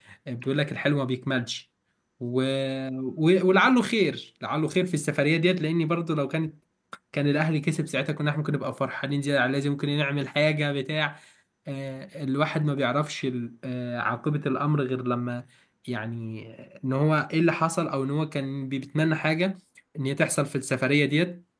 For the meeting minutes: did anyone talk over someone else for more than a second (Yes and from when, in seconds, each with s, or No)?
No